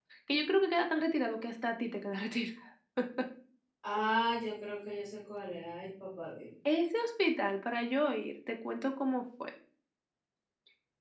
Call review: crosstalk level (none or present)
none